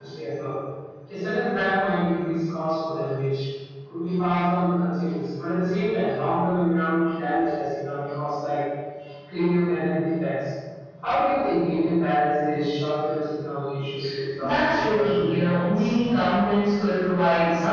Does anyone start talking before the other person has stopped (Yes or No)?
Yes